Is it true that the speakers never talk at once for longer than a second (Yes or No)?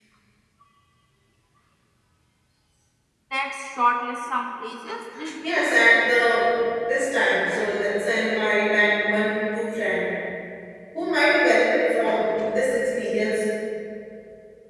Yes